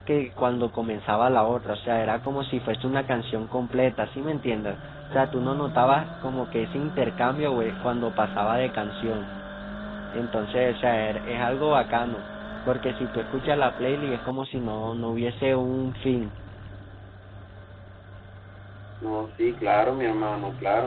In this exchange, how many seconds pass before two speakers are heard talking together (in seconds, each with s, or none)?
none